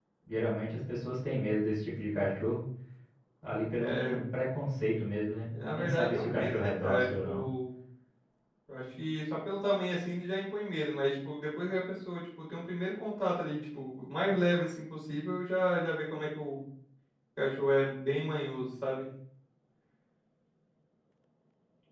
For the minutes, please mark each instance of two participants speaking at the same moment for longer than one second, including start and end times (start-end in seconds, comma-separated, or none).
5.7-7.4